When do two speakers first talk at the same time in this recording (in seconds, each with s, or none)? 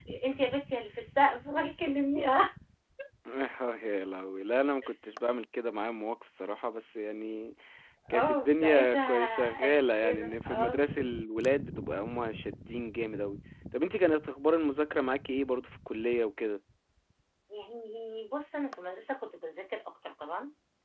8.1 s